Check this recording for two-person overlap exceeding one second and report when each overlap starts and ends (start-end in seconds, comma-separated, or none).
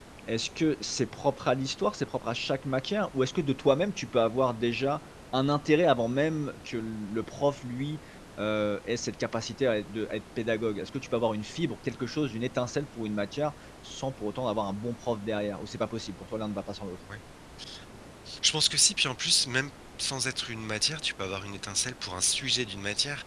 none